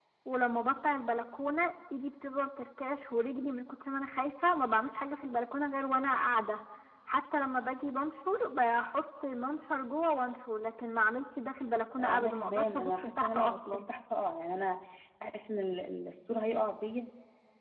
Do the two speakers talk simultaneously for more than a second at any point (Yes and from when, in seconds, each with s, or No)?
Yes, from 12.0 s